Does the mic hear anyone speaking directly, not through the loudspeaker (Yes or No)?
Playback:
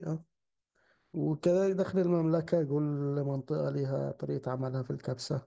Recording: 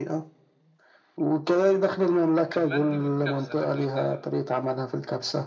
Yes